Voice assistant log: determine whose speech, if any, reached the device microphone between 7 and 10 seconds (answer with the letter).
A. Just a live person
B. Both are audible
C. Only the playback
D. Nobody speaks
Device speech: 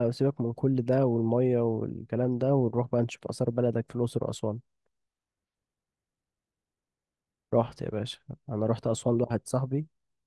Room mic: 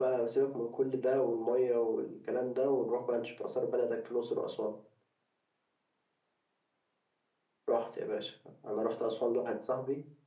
C